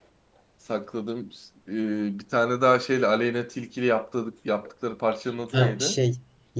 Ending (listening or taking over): taking over